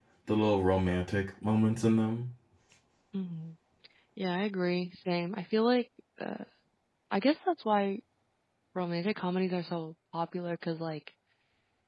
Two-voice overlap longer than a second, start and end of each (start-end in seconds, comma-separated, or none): none